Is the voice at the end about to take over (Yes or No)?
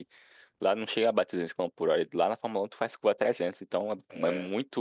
No